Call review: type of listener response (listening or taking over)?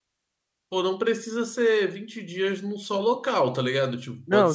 taking over